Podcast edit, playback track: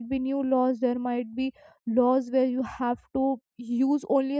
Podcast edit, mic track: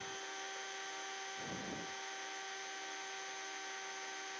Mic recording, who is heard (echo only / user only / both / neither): neither